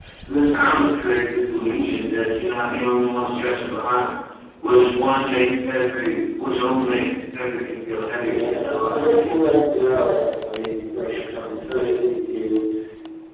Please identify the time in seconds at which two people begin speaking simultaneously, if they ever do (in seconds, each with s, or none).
8.2 s